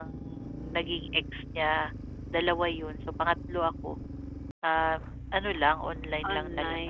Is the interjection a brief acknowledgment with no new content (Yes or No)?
No